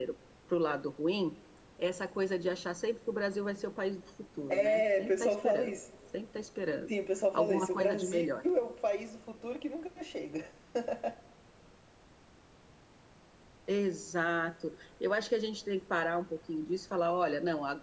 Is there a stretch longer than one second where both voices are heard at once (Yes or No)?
Yes